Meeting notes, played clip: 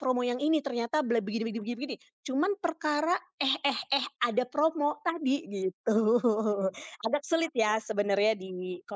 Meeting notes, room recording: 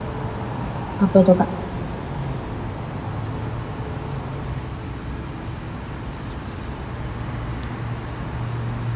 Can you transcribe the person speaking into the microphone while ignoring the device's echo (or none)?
Apa itu, Kak?